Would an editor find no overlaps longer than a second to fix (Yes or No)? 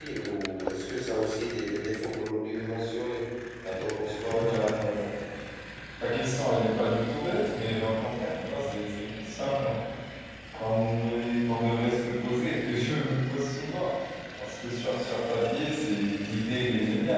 Yes